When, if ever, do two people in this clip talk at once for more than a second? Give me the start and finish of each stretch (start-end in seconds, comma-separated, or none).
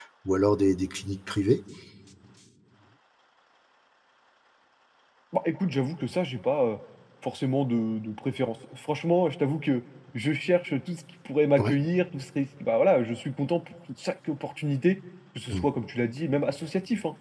none